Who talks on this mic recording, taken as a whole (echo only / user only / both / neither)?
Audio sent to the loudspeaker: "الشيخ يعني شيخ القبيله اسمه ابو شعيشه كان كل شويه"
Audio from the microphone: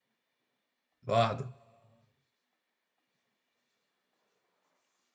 user only